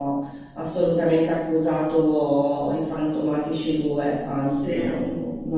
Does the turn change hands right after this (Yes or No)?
No